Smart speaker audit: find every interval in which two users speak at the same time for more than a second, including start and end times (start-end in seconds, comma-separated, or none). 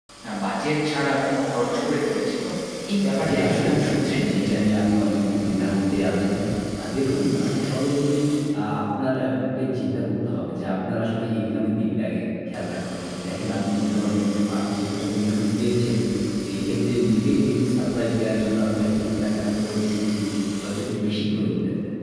3.2-4.6